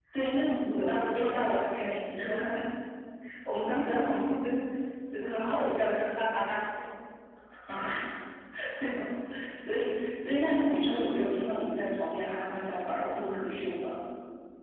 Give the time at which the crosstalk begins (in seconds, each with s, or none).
0.7 s